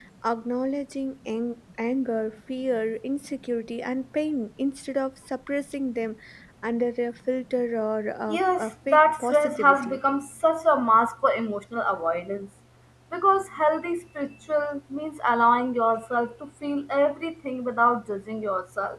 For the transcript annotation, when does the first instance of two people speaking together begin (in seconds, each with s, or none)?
8.3 s